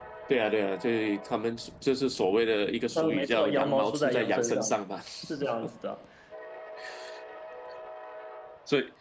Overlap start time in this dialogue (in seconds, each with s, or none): 3.0 s